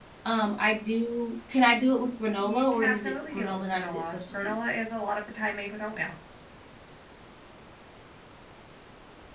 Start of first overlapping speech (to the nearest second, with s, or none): 2 s